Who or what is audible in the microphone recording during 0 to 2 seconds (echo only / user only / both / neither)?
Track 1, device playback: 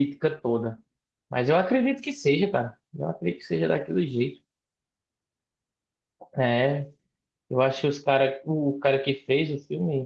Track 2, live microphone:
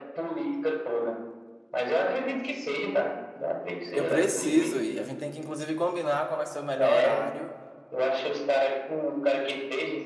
echo only